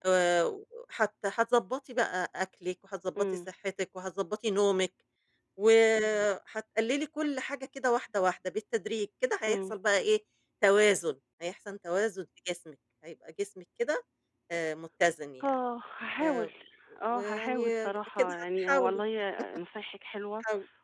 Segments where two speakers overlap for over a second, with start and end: 17.1-19.0

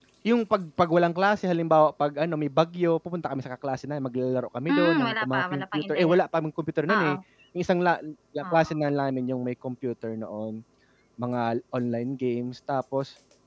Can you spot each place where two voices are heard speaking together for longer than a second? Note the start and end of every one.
4.7-6.5

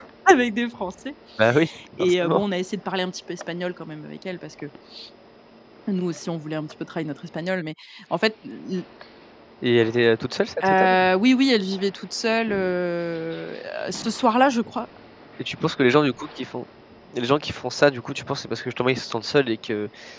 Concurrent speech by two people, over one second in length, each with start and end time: none

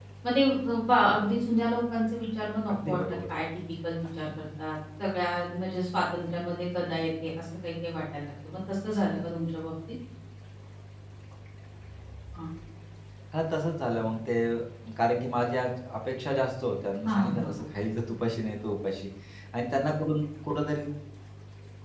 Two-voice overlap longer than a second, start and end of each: none

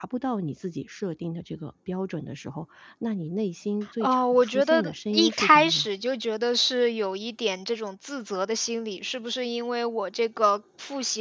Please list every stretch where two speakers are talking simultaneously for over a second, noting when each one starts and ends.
4.0-5.8

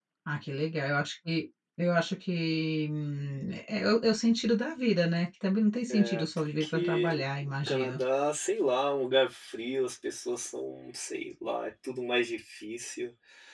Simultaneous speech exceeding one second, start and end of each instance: 5.9-8.0

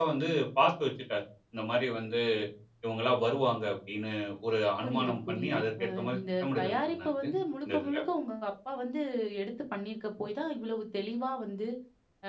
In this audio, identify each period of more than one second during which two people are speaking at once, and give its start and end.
4.8-7.1

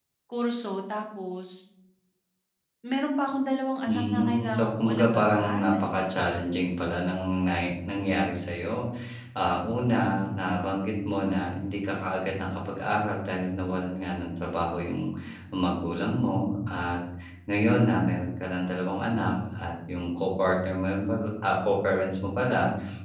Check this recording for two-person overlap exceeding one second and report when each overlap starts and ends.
3.9-5.9

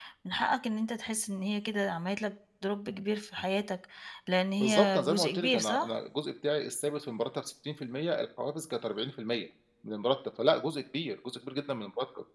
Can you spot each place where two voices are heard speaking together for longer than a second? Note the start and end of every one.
4.6-5.9

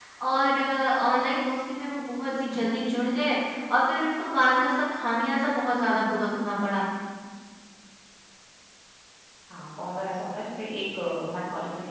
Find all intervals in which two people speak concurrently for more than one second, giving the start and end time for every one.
none

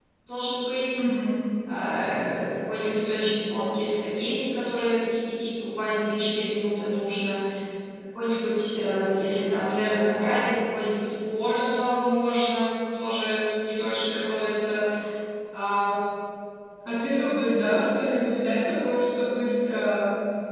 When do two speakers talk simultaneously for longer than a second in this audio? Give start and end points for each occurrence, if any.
none

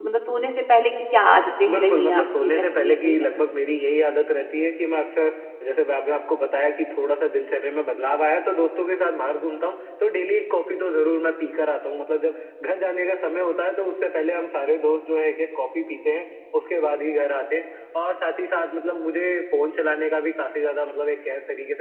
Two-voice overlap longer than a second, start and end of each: 1.7-3.5

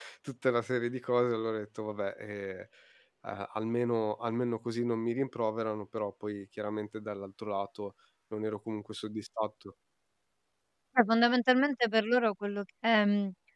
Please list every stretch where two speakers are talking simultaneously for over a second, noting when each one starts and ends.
none

